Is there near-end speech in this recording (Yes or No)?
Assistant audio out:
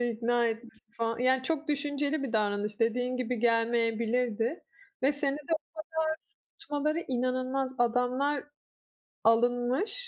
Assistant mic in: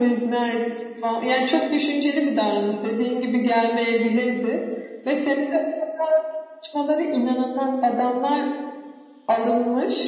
No